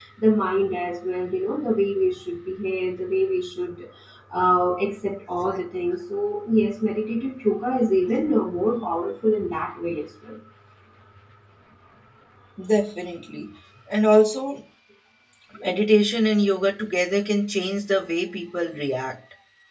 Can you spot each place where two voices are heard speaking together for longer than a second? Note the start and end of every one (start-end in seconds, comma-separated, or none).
none